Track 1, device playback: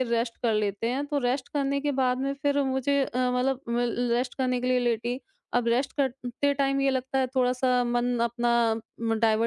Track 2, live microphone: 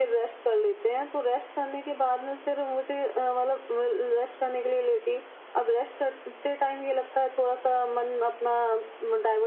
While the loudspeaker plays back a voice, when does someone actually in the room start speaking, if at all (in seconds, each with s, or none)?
none